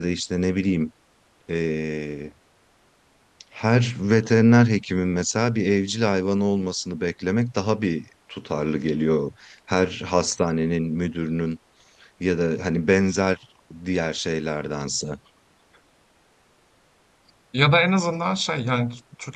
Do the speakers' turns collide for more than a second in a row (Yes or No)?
No